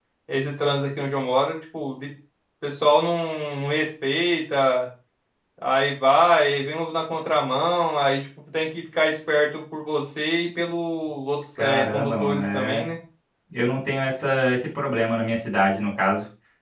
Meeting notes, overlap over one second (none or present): present